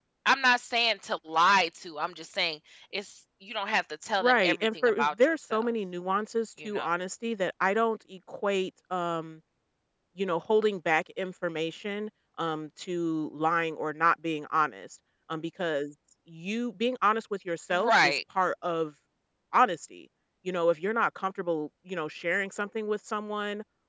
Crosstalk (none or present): present